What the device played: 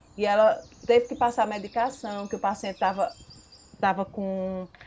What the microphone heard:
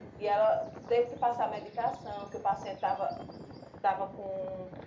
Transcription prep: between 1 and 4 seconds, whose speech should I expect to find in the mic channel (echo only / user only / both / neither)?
echo only